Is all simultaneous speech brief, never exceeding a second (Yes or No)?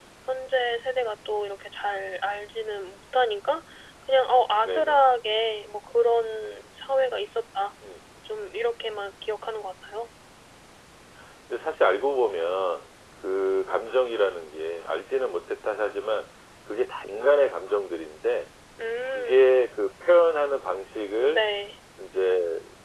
Yes